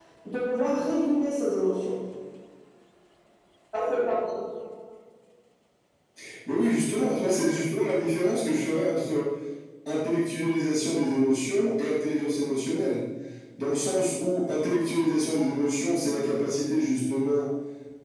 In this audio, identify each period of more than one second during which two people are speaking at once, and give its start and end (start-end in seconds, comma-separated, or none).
none